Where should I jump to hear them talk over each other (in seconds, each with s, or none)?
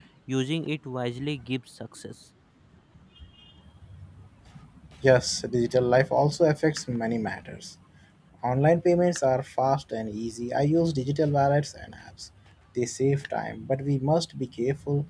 none